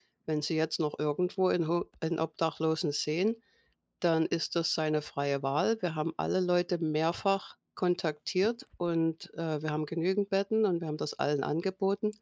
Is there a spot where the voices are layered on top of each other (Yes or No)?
No